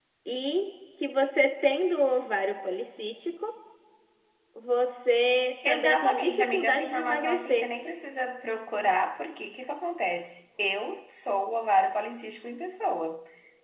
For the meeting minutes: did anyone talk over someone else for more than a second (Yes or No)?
Yes